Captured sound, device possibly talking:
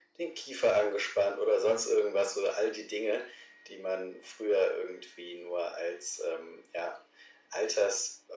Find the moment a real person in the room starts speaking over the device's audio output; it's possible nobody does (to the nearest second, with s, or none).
none